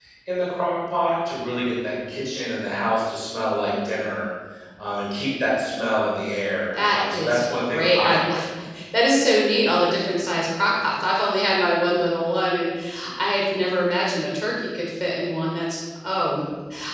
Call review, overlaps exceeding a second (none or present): present